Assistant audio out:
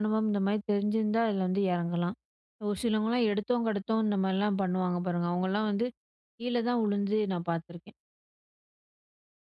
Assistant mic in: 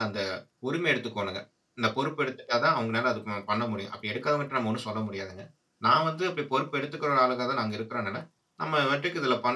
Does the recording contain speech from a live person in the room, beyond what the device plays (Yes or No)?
Yes